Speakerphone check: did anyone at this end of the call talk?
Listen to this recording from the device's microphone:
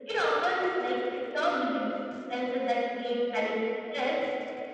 No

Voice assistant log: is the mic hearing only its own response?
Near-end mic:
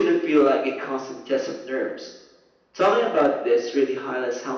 Yes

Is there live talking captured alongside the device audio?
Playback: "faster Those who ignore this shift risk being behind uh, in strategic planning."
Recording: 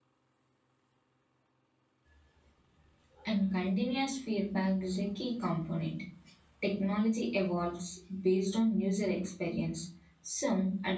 Yes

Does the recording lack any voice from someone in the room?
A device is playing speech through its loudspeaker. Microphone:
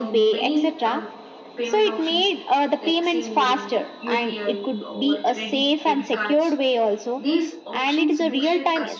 No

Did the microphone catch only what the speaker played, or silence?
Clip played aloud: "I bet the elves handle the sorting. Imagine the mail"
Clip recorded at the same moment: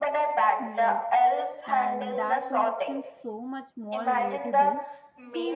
No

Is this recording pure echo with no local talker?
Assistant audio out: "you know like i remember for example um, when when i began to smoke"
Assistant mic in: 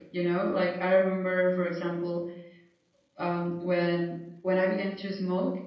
Yes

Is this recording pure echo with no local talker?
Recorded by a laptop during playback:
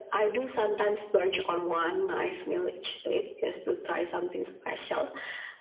Yes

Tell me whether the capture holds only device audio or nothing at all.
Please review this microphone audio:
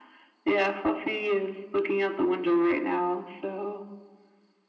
Yes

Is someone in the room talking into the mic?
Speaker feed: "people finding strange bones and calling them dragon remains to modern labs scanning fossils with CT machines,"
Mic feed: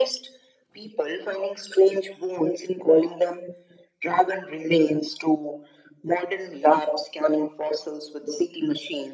No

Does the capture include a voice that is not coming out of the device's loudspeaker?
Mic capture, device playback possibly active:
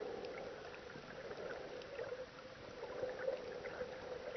No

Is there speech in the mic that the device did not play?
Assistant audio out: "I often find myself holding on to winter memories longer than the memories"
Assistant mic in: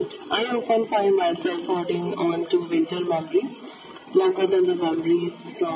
No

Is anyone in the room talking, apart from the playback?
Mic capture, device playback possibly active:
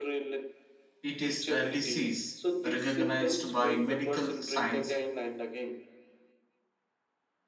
Yes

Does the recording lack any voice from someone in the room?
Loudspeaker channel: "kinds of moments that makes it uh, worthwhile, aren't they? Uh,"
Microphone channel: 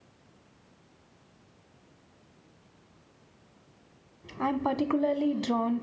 No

